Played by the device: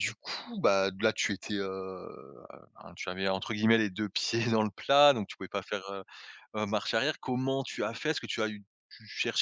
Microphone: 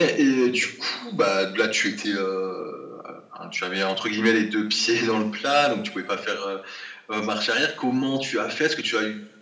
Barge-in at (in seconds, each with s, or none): none